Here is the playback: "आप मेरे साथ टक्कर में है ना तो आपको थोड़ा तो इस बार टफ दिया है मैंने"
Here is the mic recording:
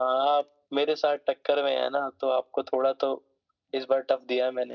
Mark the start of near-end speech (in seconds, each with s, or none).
none